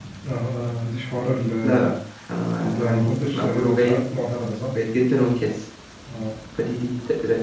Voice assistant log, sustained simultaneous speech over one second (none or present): present